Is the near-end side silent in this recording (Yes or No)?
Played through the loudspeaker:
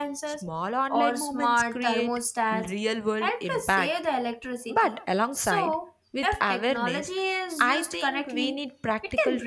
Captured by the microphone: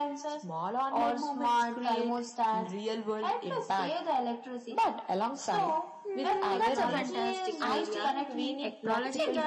No